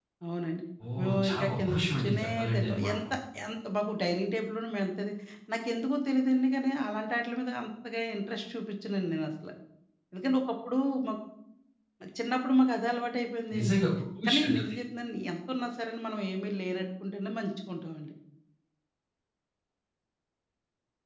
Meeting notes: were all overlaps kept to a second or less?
No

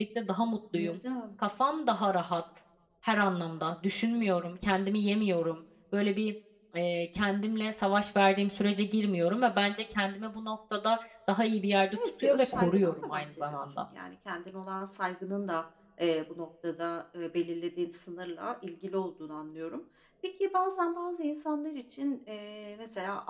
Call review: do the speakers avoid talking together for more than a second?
No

